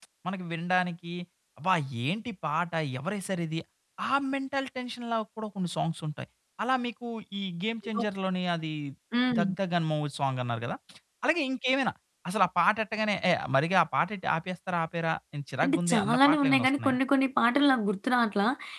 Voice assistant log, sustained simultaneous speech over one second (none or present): present